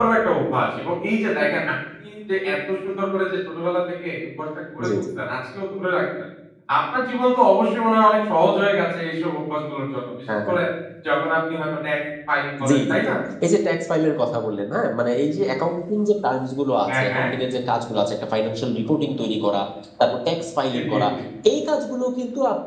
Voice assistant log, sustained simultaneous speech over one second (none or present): none